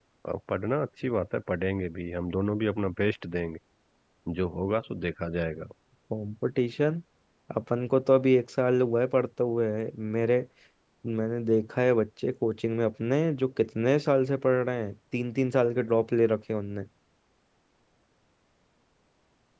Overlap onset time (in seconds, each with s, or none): none